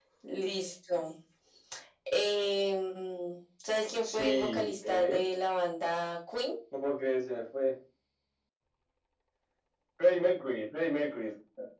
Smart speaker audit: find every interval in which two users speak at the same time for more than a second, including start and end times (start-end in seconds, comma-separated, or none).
4.0-5.3